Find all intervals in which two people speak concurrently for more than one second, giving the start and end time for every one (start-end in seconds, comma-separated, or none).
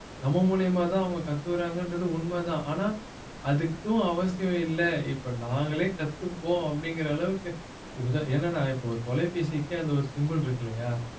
none